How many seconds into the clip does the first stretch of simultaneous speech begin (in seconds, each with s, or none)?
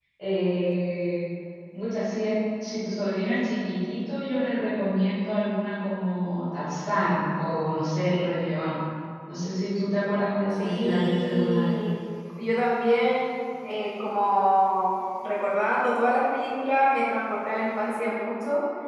10.6 s